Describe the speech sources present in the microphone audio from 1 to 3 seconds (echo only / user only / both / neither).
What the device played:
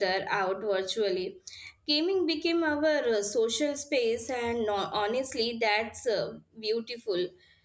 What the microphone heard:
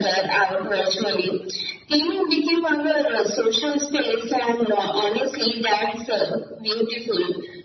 echo only